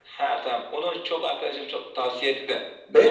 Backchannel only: No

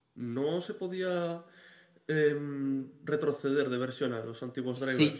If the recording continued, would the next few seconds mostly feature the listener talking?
Yes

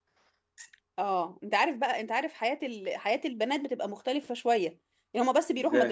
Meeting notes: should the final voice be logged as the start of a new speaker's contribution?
No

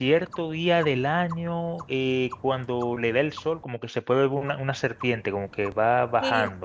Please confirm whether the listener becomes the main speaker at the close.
Yes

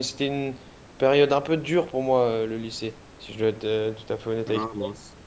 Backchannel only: No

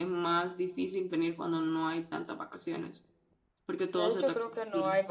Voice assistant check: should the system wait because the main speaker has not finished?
No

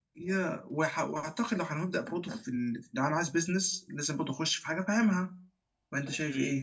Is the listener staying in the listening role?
No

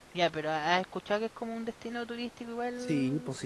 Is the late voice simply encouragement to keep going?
No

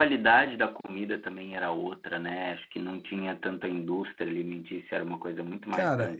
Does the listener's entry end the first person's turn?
Yes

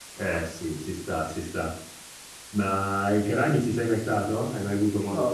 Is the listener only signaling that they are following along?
No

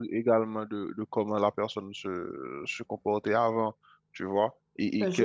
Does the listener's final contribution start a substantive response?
Yes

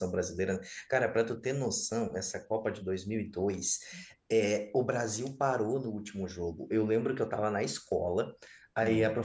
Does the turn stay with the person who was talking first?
Yes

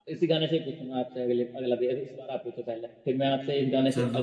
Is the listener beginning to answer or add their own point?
No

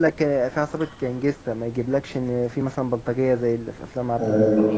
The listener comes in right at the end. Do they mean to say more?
Yes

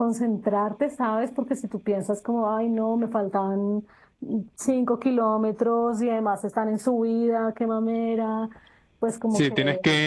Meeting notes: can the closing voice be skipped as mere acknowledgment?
No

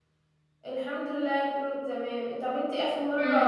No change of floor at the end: Yes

